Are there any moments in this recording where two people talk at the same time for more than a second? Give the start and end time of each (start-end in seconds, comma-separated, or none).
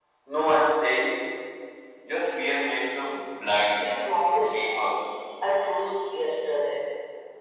none